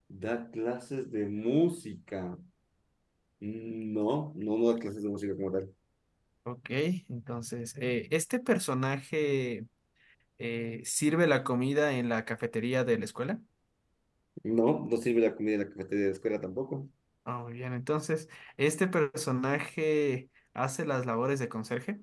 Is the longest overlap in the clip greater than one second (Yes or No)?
No